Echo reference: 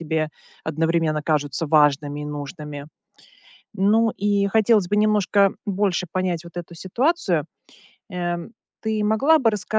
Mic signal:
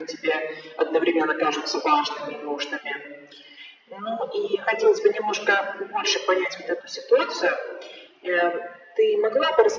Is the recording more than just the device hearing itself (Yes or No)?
No